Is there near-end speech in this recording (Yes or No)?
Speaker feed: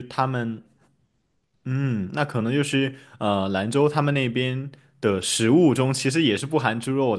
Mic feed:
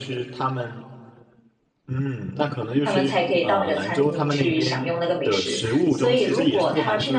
Yes